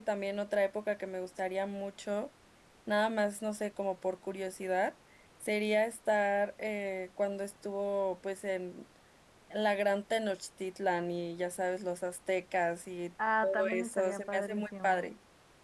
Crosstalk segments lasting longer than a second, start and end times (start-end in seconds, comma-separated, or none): 13.4-15.1